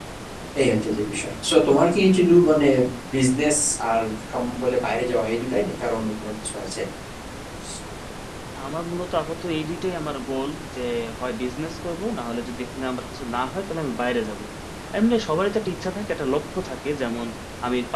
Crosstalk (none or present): none